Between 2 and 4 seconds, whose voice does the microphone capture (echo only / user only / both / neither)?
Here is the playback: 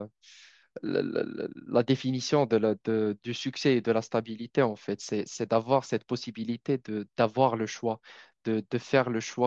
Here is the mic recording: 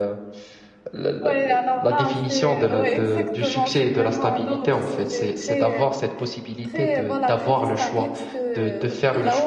both